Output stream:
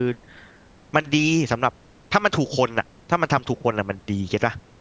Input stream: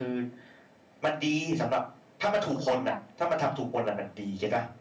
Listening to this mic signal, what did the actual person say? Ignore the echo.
เขาไม่อยาก

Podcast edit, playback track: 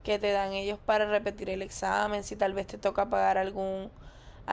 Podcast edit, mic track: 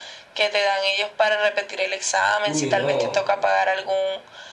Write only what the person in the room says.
Uy, no,

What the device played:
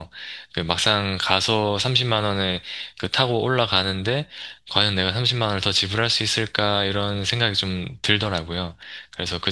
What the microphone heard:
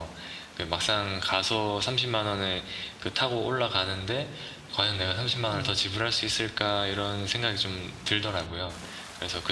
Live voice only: 음,

